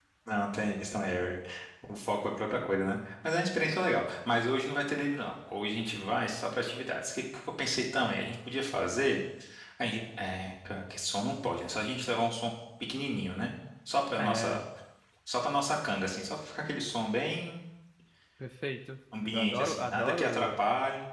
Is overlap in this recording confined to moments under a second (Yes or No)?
No